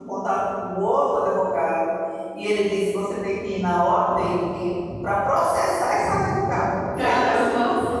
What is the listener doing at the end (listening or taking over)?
taking over